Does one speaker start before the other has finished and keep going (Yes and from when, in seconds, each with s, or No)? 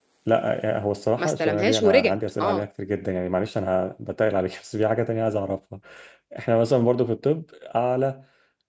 Yes, from 1.2 s